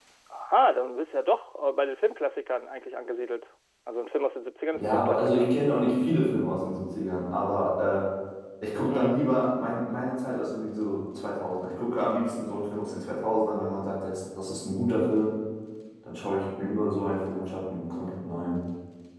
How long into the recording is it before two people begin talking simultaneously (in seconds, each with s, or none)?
4.7 s